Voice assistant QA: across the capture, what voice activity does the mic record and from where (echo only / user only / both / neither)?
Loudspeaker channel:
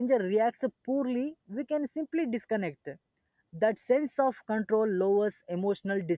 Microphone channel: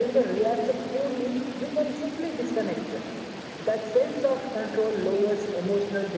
echo only